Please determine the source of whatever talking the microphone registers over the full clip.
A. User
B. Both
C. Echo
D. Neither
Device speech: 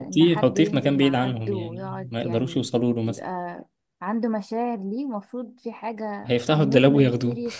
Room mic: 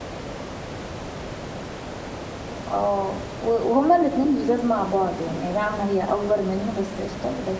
A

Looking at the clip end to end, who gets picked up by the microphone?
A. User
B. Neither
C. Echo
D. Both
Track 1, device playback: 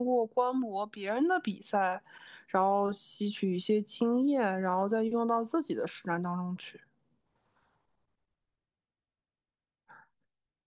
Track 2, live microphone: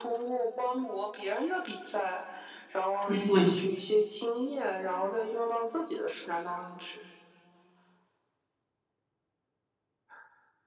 D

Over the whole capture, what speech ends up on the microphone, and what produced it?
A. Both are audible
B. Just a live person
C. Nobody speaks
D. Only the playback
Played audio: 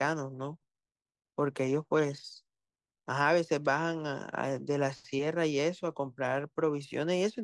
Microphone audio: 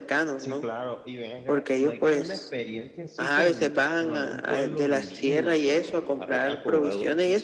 A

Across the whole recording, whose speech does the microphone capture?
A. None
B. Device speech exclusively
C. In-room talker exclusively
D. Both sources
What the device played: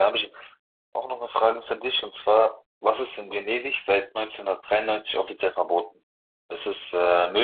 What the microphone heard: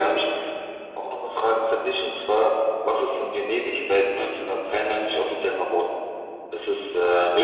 B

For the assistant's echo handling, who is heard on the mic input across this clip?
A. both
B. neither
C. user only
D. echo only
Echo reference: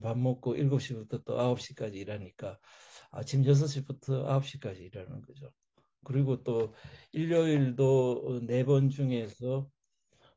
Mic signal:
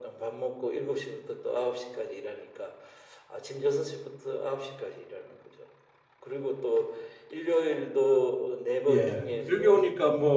A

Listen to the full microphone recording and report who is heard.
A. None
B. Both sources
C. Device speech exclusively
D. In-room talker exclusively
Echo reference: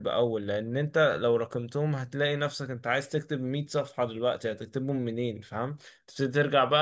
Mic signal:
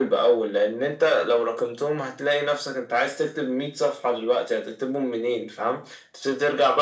C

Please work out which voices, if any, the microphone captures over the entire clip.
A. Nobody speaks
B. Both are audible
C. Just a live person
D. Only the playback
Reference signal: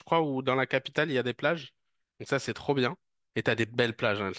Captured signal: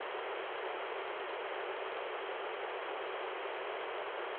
A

